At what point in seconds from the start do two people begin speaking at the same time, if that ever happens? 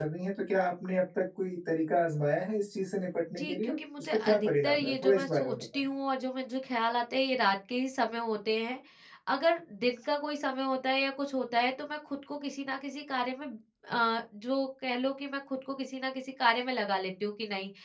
3 s

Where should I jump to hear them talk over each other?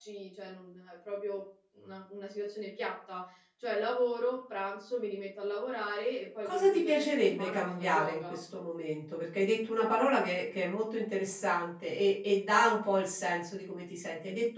6 s

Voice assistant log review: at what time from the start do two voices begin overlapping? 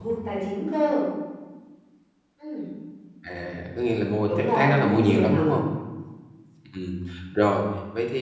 4 s

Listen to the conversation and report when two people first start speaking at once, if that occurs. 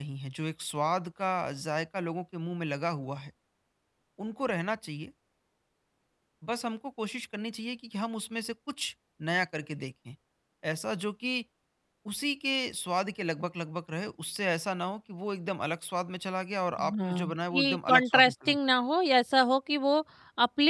17 s

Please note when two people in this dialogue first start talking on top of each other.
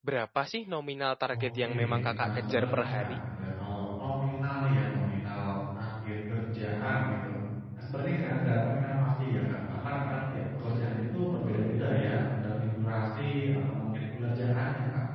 1 s

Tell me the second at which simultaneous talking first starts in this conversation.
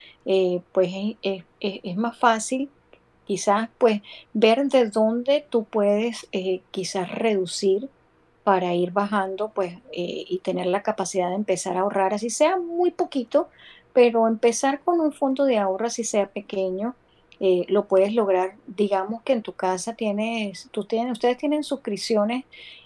none

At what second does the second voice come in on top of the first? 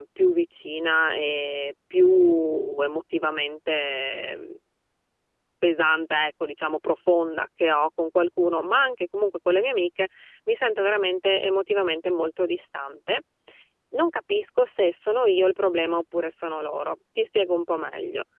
none

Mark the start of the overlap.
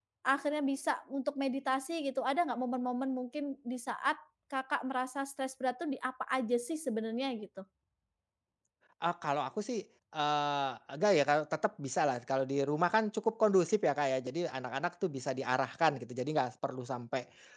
none

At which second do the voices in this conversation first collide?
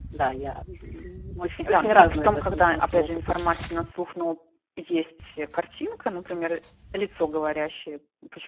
1 s

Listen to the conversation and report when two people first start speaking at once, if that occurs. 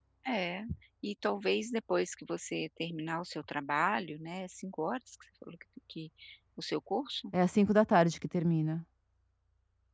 none

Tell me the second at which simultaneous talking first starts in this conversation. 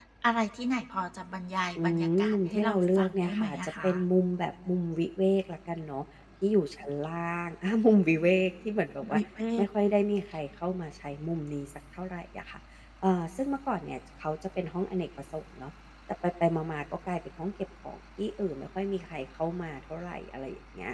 2 s

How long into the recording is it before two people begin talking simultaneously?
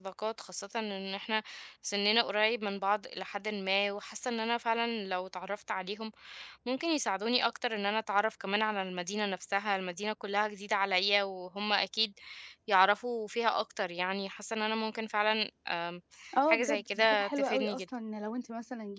16 s

